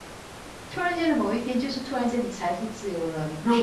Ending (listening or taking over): listening